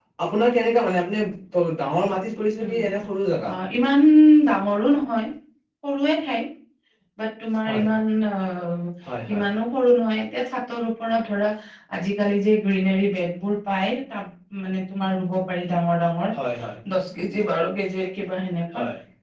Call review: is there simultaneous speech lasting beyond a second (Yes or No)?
No